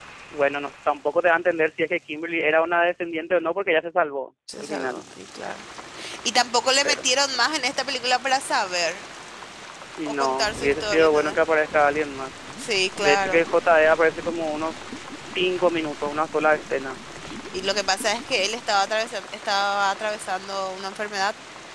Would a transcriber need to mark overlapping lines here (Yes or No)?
Yes